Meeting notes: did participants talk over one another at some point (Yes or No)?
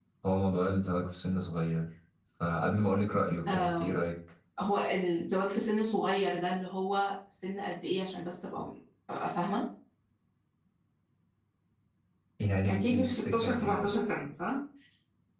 Yes